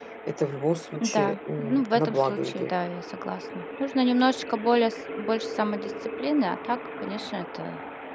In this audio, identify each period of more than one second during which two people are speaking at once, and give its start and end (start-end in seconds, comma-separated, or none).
1.0-2.7